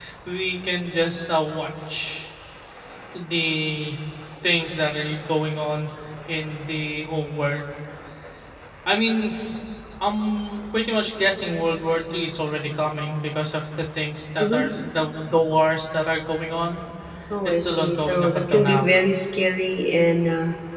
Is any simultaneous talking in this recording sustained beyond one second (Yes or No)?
Yes